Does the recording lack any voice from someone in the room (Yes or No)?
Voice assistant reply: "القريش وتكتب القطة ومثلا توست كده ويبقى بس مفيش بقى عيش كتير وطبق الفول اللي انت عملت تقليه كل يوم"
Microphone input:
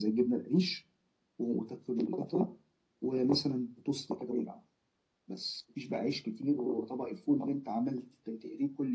Yes